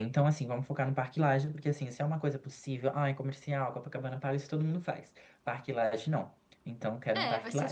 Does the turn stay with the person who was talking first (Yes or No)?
No